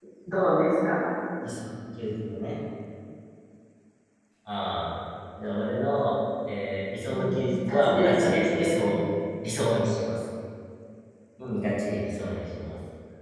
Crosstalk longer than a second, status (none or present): present